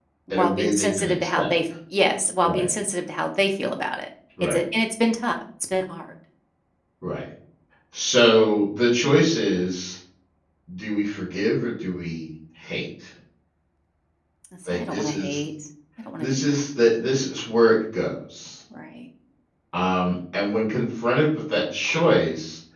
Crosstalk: present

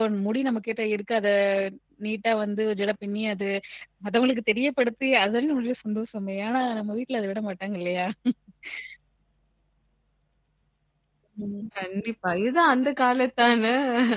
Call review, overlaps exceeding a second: none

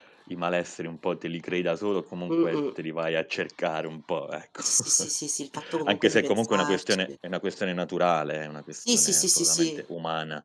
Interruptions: present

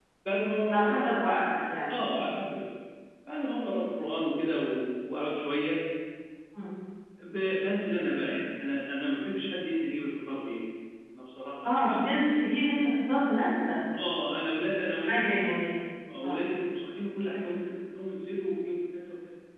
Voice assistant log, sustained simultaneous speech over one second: none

